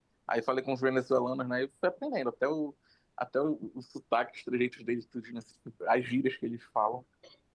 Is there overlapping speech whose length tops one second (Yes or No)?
No